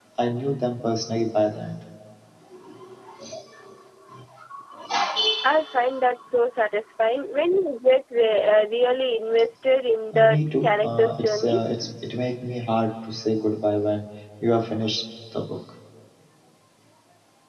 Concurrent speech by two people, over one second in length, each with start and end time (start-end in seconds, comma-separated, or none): 10.1-11.6